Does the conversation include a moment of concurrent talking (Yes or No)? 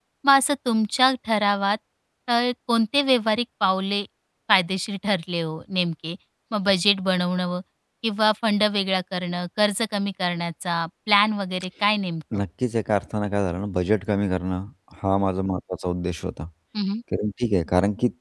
No